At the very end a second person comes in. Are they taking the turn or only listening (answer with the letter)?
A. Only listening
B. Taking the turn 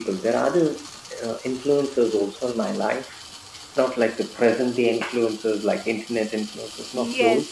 B